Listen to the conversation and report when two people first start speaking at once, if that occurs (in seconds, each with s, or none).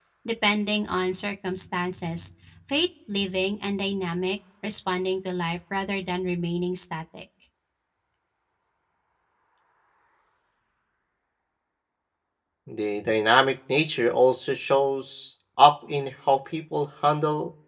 none